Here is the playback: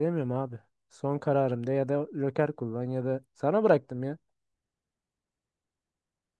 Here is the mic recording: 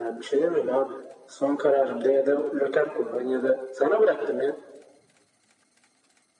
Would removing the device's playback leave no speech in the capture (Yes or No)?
Yes